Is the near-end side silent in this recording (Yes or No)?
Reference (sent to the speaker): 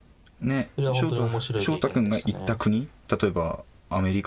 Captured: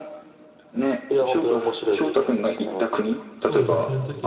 No